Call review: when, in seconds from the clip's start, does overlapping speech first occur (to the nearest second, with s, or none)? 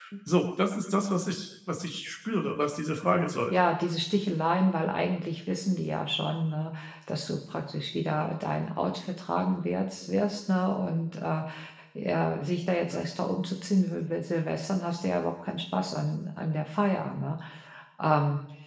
none